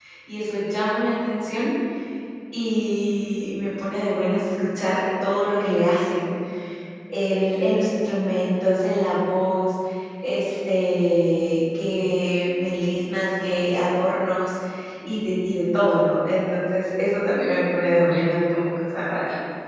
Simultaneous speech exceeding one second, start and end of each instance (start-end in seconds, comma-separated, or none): none